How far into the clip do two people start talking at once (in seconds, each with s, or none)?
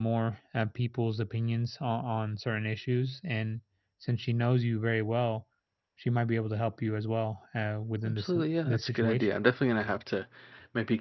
8.0 s